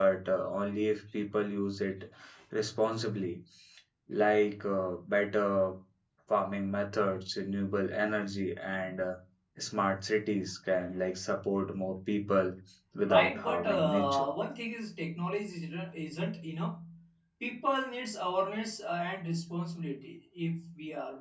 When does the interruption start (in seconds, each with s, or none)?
13.0 s